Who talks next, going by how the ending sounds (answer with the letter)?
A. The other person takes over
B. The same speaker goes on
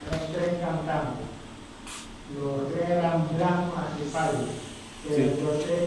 B